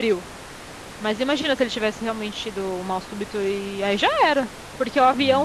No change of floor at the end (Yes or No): Yes